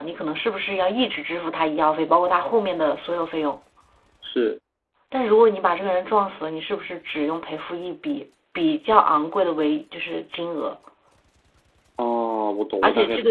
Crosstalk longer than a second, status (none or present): none